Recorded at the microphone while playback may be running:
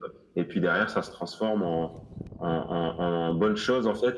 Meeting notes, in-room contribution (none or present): none